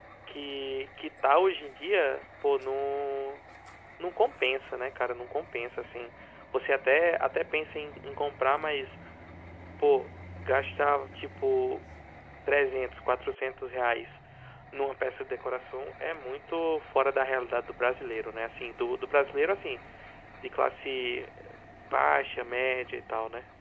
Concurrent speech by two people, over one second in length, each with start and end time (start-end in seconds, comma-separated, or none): none